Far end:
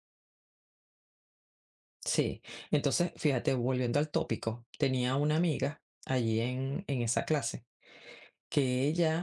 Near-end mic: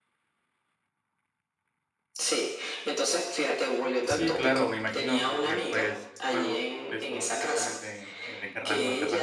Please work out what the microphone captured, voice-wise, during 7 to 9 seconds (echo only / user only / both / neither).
both